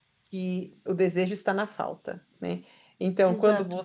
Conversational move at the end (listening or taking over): listening